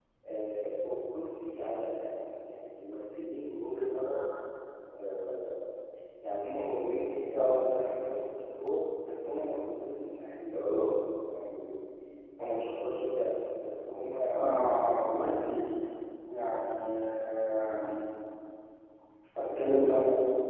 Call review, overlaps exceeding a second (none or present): none